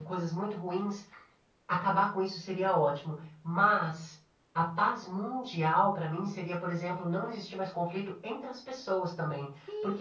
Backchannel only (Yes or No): No